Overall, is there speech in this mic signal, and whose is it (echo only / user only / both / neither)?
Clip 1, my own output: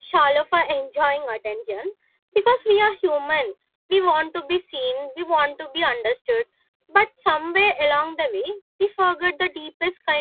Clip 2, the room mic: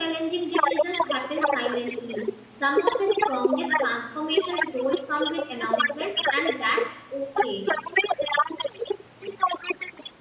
both